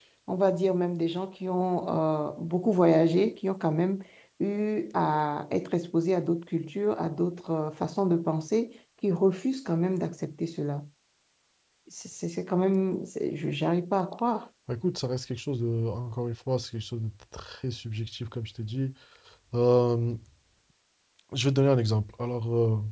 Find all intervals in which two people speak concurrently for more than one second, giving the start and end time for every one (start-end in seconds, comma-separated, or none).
none